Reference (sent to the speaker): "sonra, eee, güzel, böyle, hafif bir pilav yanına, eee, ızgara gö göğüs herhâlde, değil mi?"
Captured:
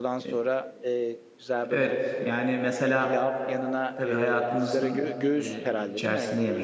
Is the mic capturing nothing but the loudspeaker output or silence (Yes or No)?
No